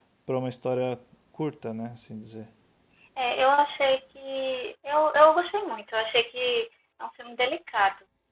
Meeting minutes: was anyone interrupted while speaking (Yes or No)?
No